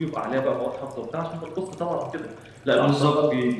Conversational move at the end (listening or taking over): listening